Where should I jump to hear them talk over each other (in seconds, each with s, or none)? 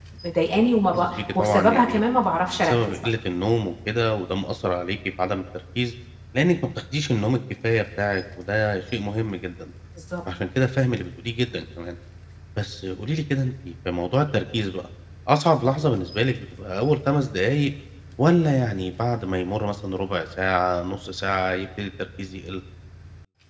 0.6 s